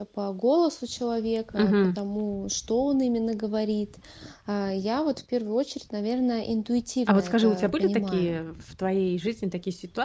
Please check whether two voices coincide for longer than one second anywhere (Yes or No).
Yes